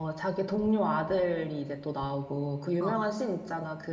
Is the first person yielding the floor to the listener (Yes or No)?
No